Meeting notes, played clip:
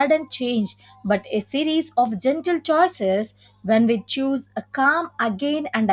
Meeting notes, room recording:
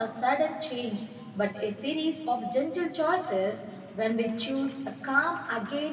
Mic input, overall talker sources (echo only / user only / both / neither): echo only